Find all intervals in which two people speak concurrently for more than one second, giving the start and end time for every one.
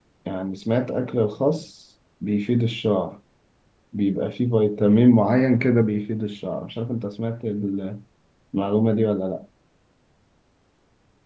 none

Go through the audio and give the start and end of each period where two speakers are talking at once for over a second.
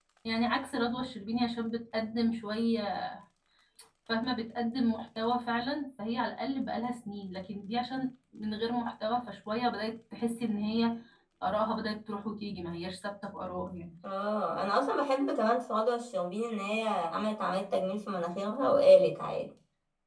none

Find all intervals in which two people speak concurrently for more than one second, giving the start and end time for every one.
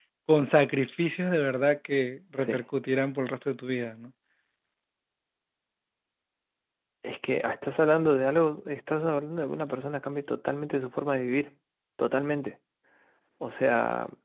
none

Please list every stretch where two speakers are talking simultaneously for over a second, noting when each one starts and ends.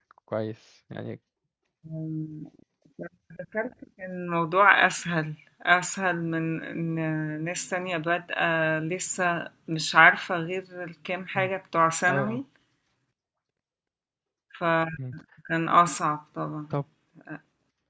none

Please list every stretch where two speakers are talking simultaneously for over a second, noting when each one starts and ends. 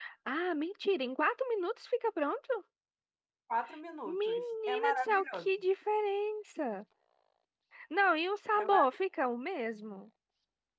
4.0-5.5

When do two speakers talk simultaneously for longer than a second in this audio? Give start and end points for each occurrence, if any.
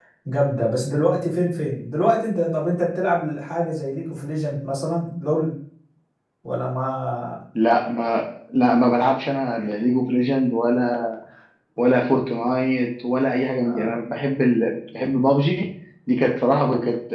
none

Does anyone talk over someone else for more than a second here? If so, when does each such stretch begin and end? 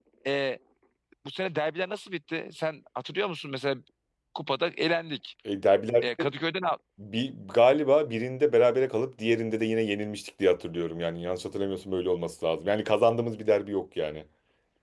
none

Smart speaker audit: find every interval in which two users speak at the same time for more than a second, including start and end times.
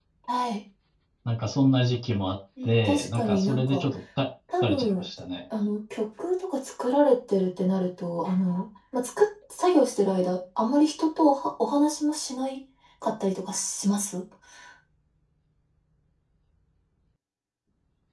2.6-3.8

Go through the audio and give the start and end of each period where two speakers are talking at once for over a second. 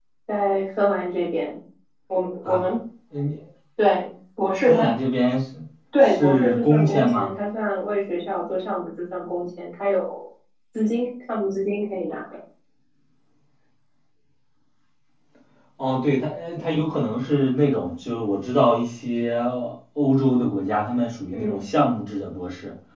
6.0-7.3

